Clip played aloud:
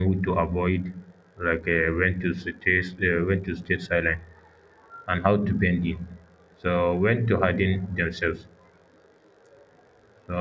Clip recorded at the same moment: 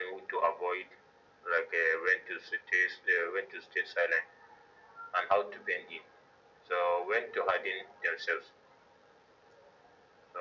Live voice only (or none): none